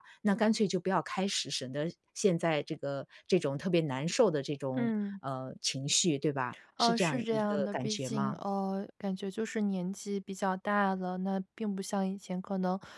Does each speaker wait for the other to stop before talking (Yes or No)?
No